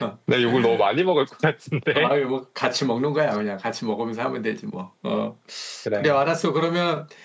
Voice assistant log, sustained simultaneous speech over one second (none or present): none